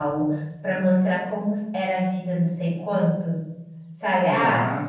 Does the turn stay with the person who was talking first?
Yes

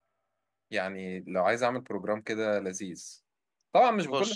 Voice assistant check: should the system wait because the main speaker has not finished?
Yes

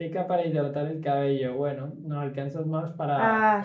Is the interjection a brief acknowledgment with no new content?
Yes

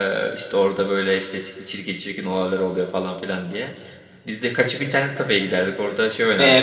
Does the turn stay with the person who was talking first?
No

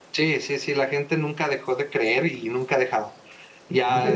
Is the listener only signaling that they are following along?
No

